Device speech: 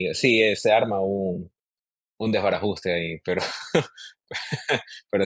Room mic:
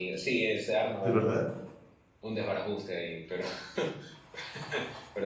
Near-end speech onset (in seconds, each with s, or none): 1.0 s